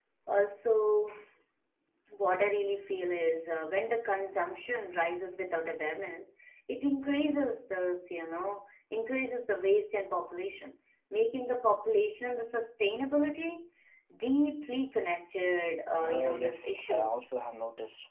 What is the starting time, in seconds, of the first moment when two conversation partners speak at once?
16.0 s

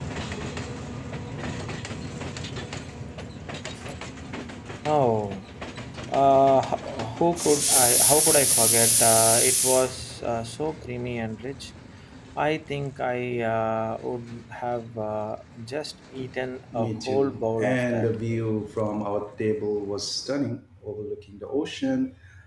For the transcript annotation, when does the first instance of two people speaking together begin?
16.7 s

